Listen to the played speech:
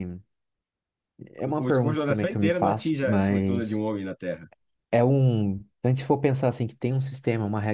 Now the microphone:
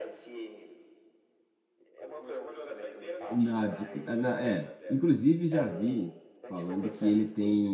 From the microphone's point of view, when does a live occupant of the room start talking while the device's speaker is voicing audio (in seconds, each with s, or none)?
3.3 s